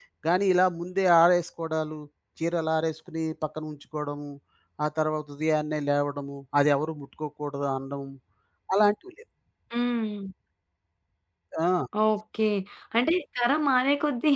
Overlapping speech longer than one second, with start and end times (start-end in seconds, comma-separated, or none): none